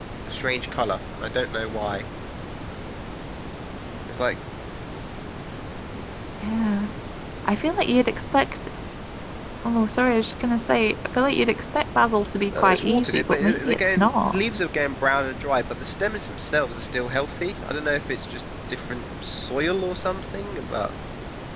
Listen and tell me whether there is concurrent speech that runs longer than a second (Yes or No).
Yes